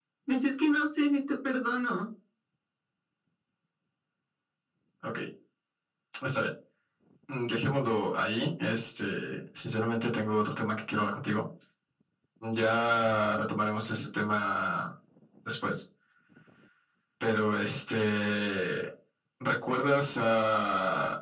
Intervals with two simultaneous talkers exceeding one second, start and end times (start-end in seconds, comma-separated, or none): none